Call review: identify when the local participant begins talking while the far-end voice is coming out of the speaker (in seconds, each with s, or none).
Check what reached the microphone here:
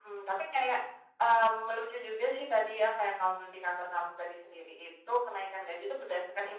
none